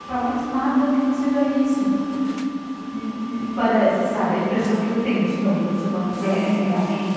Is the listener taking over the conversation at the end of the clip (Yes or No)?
Yes